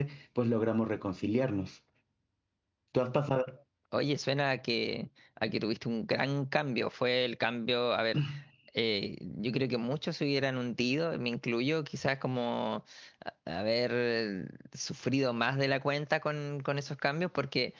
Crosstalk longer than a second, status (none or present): none